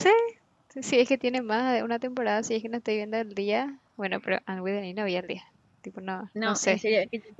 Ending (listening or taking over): taking over